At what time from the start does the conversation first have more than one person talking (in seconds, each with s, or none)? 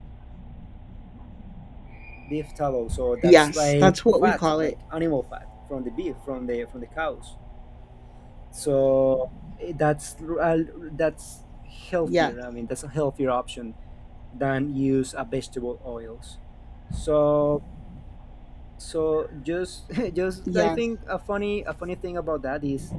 3.2 s